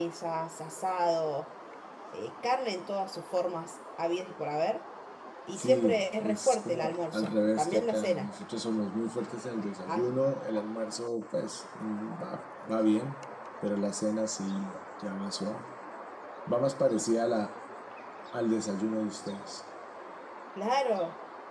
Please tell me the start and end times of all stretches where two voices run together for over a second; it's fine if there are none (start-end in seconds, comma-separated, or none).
5.5-8.3